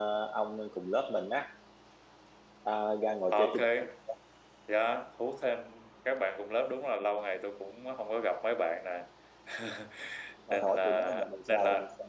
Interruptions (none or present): present